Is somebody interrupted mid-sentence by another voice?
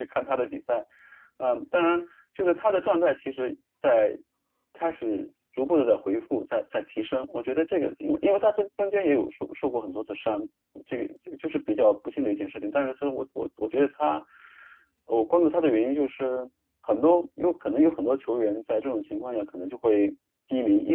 No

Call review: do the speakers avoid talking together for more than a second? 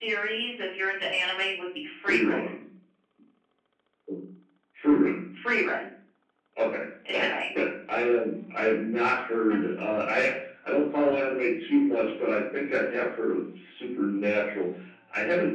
Yes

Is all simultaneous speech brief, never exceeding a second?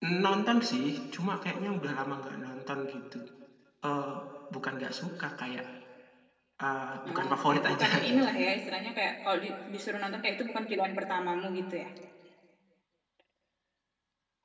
No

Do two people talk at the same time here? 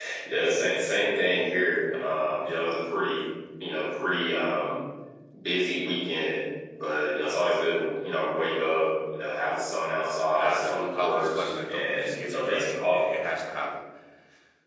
Yes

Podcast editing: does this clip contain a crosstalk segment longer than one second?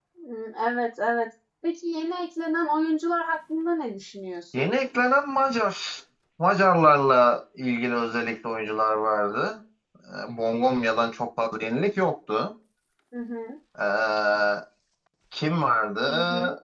No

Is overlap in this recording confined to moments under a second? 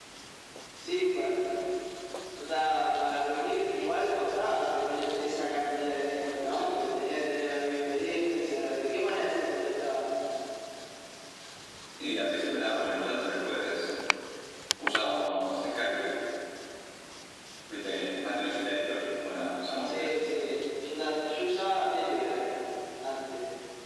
Yes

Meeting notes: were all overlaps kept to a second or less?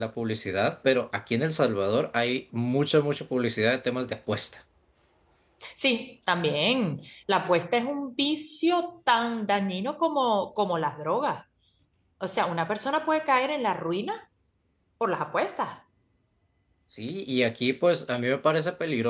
Yes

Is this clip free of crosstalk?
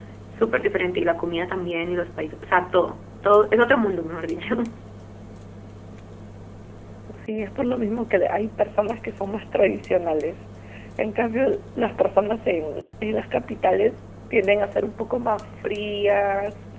Yes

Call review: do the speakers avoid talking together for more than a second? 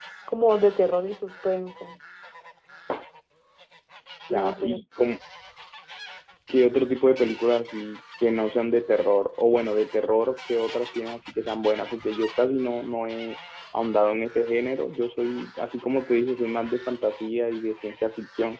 Yes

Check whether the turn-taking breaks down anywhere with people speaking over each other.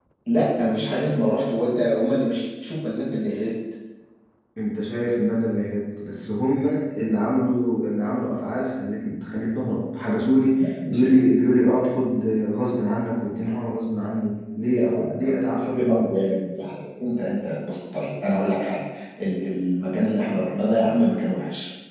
Yes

